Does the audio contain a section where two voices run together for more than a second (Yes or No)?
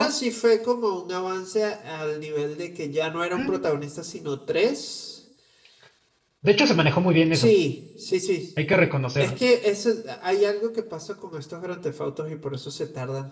No